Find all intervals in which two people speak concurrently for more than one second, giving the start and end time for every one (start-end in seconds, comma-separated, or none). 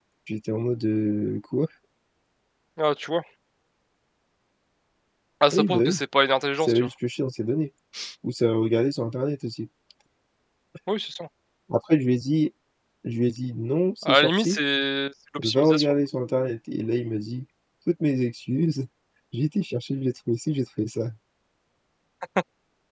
none